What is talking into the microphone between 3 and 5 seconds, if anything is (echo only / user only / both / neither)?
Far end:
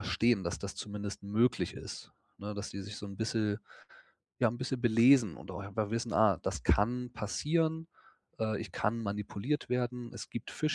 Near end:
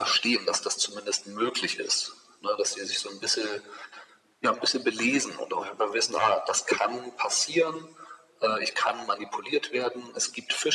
echo only